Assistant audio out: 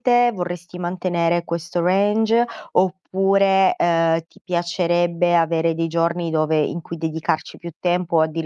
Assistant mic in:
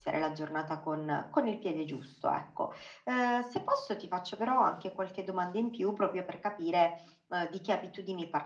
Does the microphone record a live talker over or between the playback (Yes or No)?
Yes